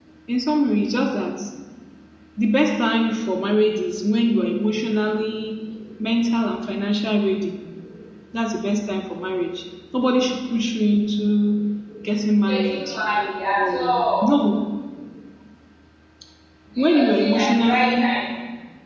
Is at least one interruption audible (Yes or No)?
Yes